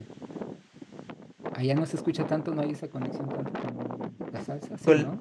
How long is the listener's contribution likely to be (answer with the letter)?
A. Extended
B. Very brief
A